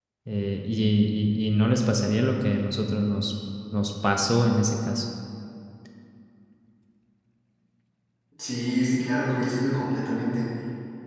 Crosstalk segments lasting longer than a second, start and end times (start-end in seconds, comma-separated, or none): none